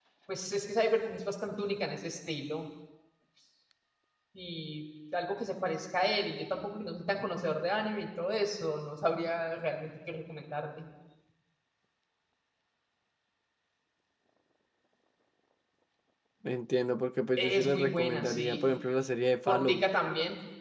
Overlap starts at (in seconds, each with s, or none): 17.4 s